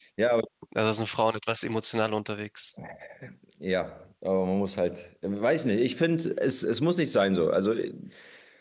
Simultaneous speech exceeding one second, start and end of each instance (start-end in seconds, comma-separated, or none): none